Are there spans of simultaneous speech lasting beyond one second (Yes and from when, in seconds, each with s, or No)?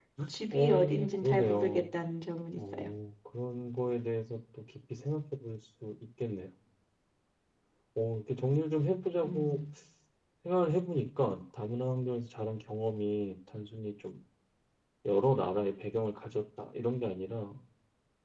Yes, from 0.5 s